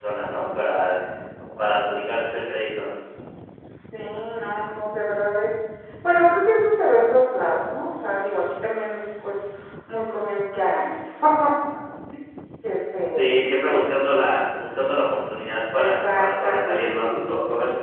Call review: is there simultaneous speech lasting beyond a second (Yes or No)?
Yes